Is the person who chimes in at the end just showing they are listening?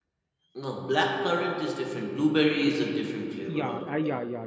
No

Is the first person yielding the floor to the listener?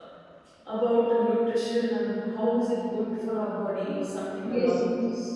Yes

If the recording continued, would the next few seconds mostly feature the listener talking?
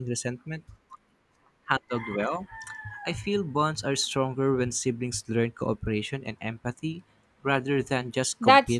Yes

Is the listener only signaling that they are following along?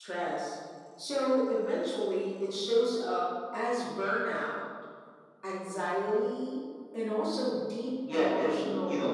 No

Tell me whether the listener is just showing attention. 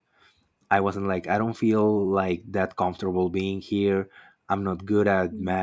Yes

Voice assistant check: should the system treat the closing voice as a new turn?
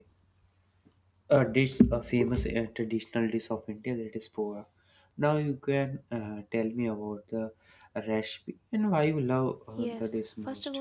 Yes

